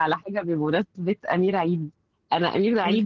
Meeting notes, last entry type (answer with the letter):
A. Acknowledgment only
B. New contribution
A